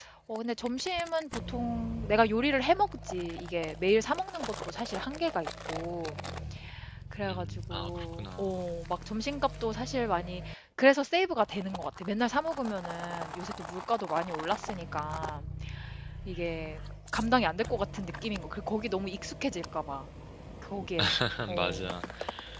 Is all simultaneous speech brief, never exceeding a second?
No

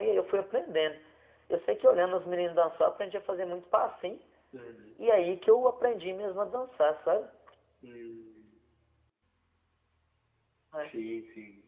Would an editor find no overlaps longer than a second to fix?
Yes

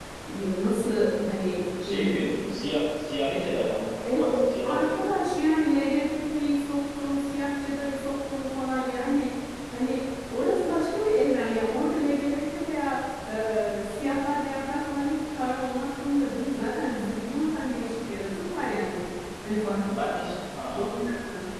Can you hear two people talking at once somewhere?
Yes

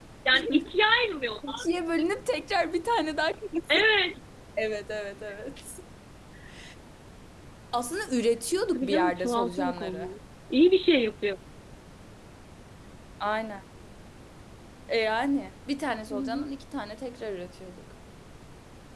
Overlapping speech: Yes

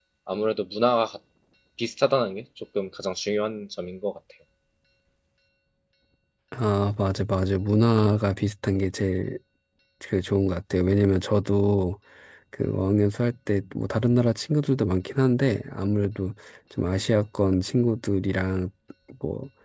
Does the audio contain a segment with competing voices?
No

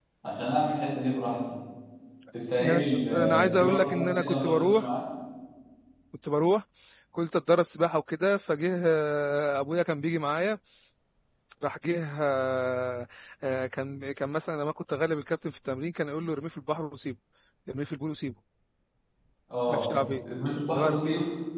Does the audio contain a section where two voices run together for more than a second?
Yes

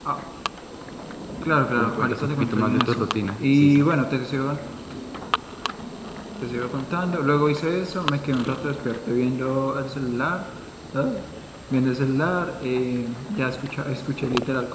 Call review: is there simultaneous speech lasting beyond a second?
Yes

